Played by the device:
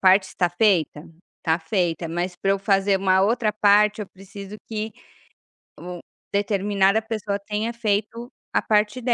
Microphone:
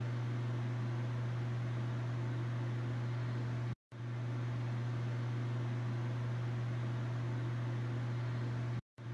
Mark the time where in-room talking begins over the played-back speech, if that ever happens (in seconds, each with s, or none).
none